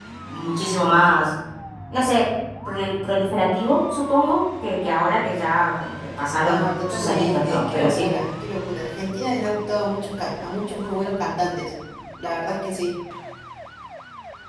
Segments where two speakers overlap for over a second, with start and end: 6.4-8.1

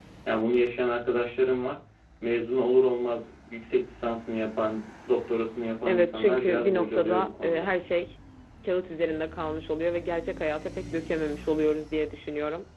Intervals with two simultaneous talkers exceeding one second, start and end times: 5.9-7.7

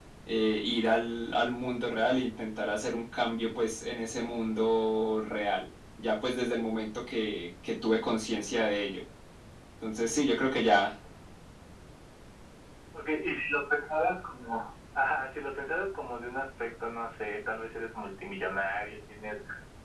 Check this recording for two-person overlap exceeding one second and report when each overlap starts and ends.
none

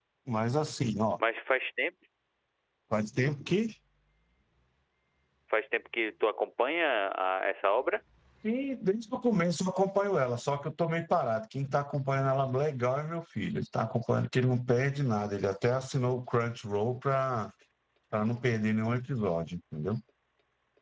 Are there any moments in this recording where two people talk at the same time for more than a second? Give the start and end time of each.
none

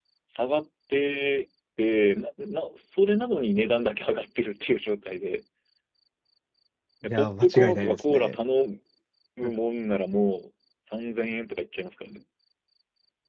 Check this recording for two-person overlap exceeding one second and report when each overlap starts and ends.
7.0-8.4

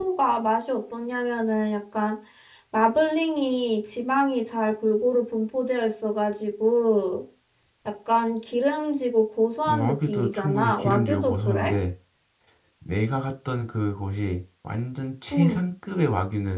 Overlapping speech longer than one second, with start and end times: 9.7-11.7

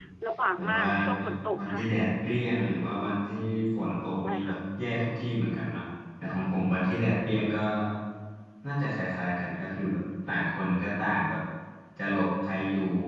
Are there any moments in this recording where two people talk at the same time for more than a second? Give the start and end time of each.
0.6-1.8

